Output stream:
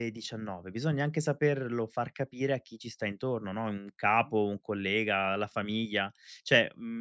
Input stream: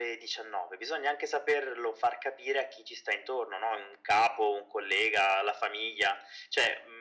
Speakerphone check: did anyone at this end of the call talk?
No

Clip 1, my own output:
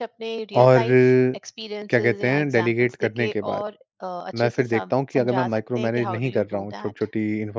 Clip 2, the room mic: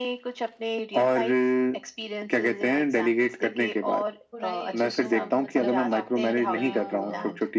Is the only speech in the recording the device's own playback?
No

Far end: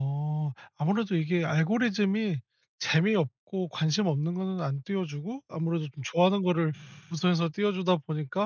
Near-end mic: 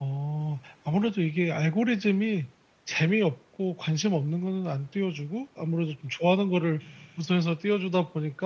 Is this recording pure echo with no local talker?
Yes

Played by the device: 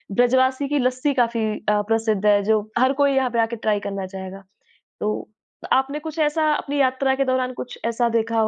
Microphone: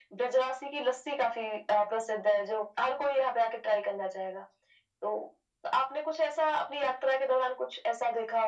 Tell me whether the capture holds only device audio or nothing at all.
Yes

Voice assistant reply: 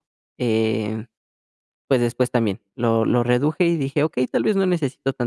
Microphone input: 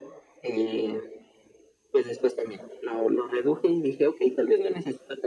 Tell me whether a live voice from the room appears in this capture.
No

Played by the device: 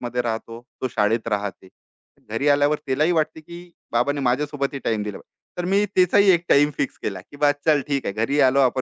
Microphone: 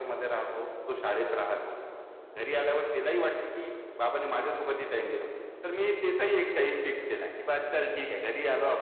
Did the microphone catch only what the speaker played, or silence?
No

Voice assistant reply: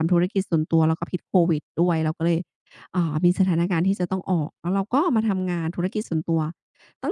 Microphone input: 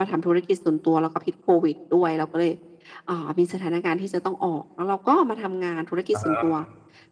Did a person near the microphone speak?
Yes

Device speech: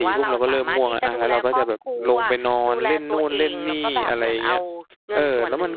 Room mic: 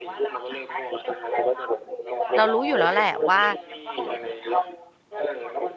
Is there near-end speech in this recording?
Yes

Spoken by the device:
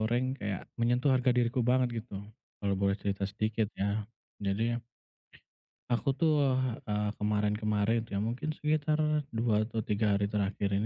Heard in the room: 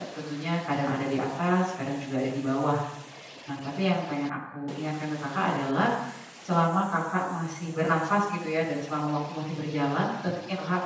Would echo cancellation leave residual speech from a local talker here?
Yes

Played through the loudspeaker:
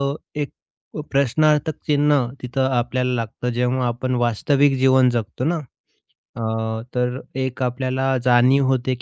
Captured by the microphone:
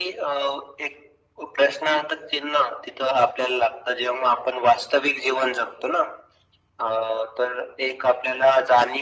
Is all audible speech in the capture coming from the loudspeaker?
Yes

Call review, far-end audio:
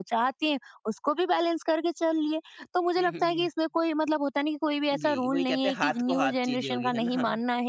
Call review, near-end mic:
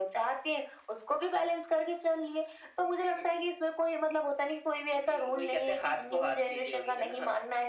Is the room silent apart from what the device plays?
Yes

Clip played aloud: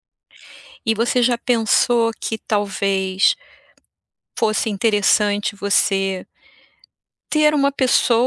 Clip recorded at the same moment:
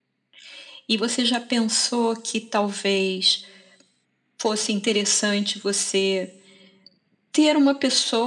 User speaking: No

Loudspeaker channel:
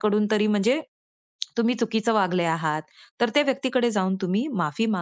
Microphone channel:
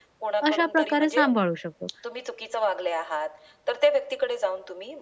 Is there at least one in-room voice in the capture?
Yes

